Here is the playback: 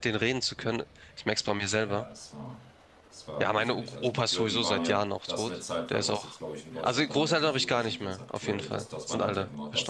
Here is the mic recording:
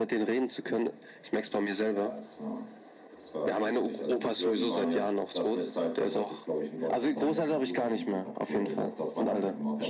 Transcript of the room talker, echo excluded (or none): none